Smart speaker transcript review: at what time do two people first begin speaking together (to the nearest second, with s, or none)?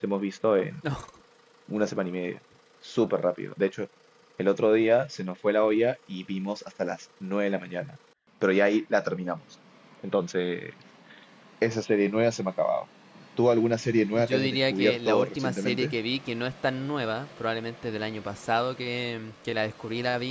14 s